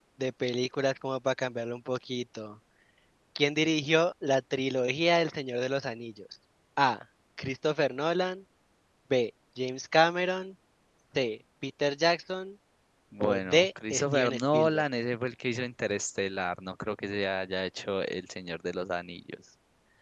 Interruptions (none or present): present